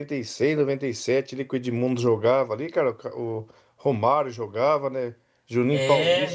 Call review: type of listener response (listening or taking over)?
listening